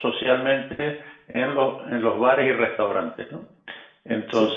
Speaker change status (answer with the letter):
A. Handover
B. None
B